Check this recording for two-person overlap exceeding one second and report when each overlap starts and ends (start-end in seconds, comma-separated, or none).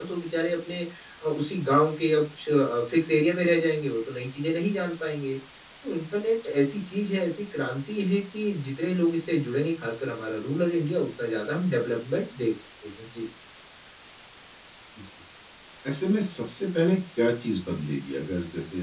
none